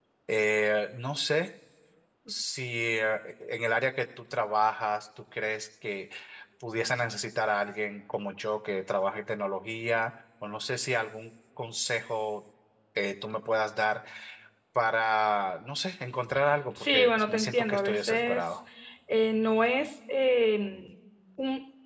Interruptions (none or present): present